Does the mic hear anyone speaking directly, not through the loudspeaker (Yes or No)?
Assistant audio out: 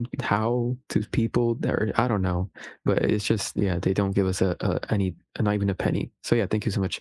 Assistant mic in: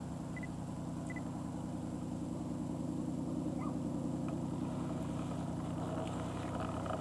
No